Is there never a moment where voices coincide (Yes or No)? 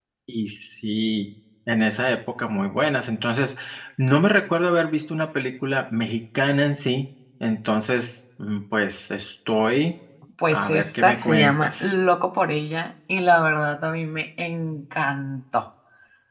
No